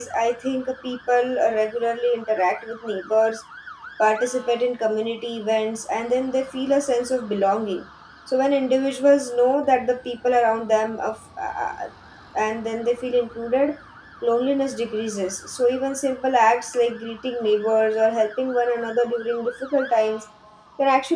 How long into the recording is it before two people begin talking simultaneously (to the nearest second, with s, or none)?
none